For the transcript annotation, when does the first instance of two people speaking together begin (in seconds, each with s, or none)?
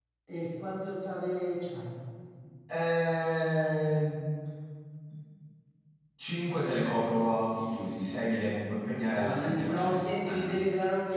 9.2 s